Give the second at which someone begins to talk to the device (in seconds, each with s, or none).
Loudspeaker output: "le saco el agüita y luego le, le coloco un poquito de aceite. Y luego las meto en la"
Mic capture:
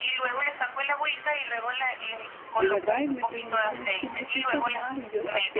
2.6 s